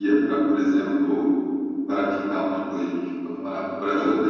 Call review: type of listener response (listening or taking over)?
listening